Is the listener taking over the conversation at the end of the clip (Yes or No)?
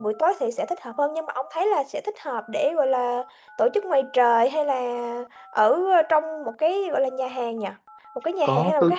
Yes